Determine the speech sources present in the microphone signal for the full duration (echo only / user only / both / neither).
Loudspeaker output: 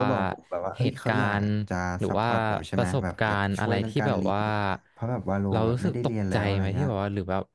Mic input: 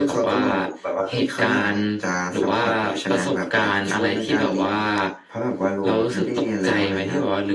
echo only